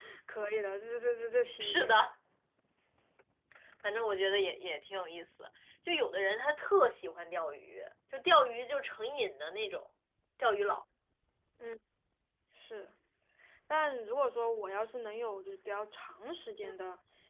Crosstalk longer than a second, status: none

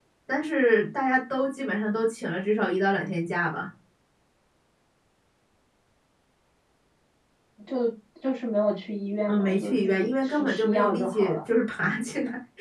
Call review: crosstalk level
present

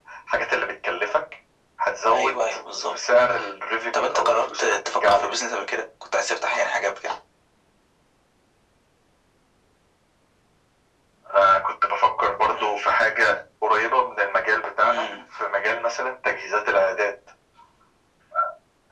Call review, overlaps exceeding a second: present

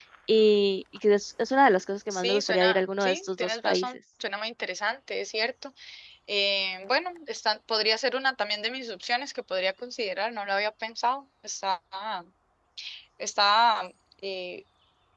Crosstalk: present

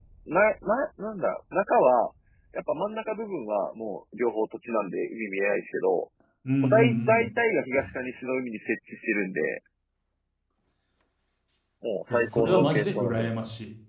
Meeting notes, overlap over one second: present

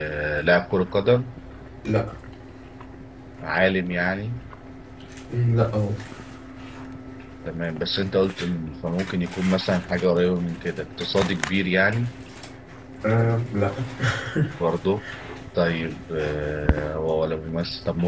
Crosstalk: none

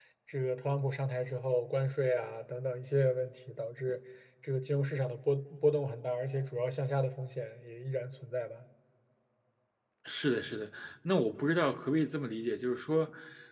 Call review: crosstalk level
none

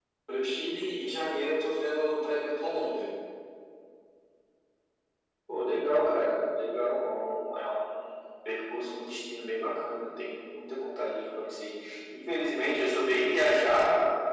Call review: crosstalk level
none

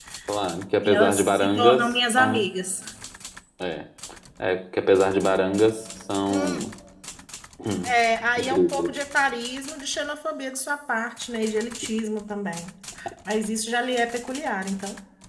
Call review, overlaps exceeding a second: present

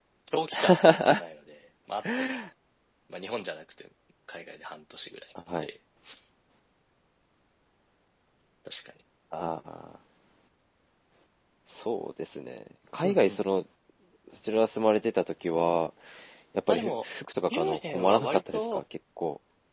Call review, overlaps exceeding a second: present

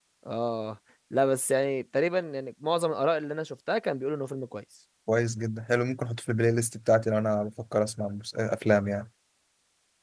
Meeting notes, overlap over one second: none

